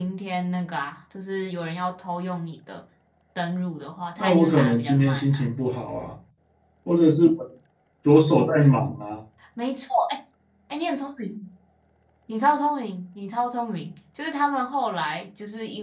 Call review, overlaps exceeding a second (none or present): present